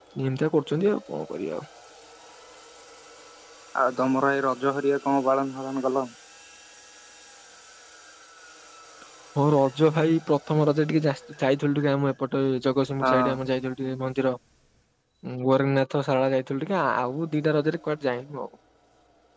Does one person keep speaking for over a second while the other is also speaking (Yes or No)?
No